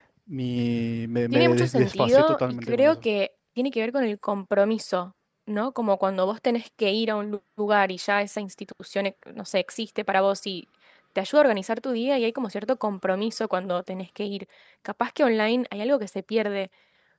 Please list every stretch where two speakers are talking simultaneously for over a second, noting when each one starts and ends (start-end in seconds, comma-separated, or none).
1.3-3.0